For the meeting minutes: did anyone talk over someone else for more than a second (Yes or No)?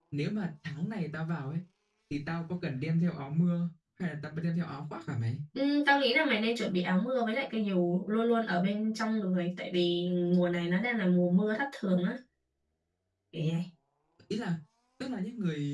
No